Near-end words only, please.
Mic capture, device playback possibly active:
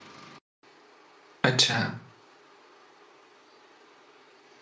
अच्छा

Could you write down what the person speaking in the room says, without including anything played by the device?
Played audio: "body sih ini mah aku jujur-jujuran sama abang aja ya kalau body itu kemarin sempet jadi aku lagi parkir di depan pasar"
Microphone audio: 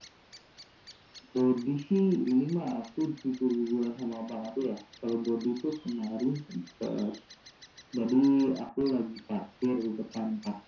none

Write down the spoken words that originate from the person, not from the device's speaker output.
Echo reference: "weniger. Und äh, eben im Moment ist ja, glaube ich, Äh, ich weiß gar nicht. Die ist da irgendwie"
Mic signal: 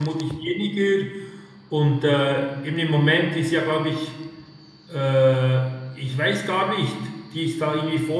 none

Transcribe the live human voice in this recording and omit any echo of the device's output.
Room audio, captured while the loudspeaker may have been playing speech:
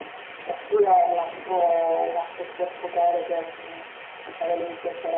none

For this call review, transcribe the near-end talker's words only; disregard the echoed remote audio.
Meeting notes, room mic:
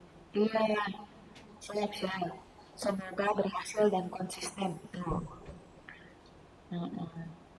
none

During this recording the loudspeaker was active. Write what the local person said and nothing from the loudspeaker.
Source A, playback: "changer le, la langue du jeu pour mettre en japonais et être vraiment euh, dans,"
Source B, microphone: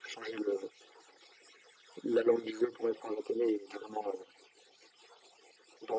none

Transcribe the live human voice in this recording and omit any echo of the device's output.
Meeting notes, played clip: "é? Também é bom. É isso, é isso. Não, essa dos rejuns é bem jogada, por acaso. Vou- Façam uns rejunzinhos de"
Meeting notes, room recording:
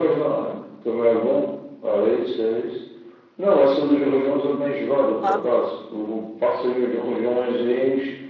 Ah, boa.

